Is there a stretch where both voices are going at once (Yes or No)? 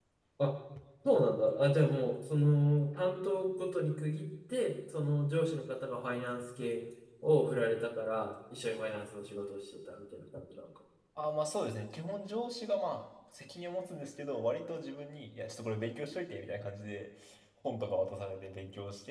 No